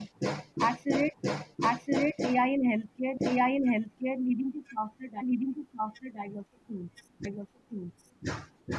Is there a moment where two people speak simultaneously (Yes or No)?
No